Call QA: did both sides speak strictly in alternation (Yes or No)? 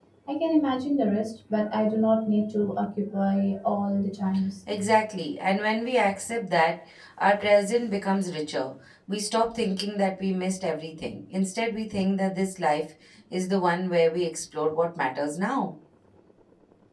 Yes